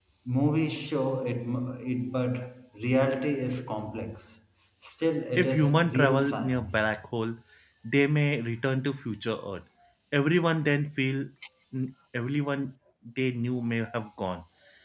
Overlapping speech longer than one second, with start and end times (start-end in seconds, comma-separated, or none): 5.3-6.8